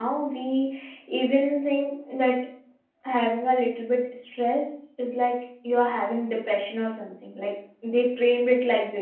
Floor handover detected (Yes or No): Yes